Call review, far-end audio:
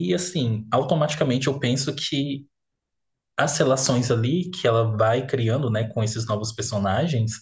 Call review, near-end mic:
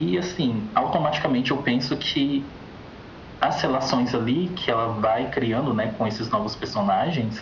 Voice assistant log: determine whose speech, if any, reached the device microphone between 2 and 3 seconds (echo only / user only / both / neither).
echo only